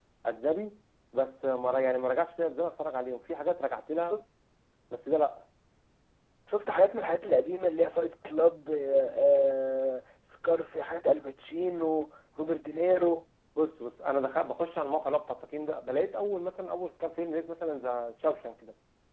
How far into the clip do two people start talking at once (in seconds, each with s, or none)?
none